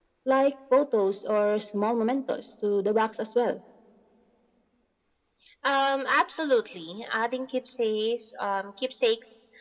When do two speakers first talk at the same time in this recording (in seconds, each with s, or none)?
none